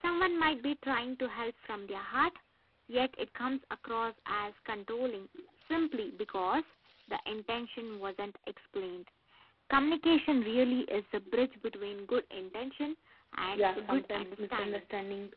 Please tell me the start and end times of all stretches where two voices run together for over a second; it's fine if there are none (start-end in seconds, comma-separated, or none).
13.6-14.8